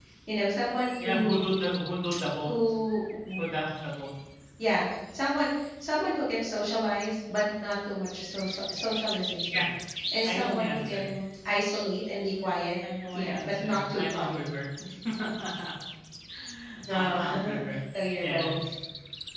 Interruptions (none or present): present